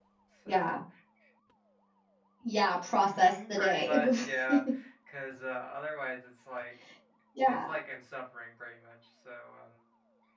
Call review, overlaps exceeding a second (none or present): present